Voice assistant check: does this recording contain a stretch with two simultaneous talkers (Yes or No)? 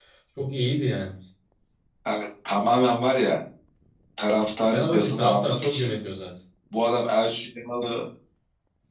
Yes